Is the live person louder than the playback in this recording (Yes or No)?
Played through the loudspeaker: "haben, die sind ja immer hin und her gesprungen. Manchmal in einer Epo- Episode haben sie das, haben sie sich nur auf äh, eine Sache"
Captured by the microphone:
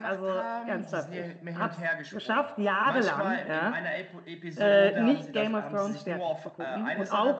Yes